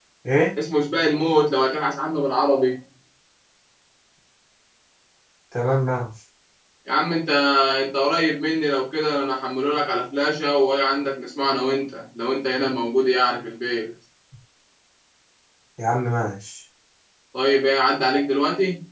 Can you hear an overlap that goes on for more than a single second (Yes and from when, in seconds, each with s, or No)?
No